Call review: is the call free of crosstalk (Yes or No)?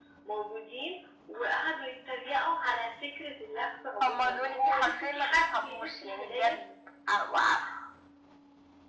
No